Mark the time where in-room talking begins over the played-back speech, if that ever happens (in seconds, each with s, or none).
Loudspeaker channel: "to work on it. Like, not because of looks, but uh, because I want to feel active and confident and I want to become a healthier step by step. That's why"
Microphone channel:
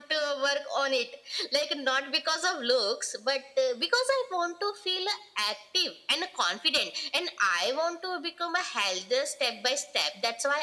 none